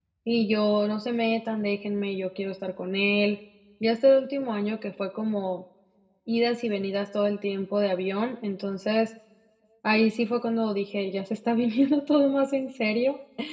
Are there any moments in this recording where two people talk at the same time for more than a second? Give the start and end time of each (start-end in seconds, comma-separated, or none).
none